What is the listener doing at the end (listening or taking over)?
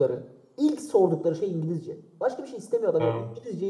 listening